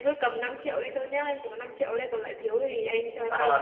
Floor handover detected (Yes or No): Yes